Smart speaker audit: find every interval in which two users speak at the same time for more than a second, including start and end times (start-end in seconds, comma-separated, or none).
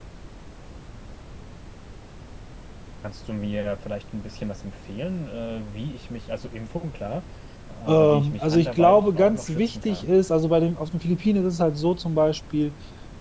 7.9-10.1